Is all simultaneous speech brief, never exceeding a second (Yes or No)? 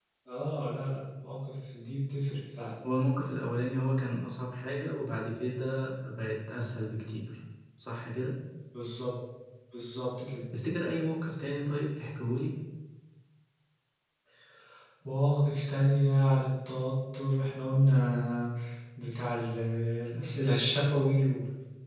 Yes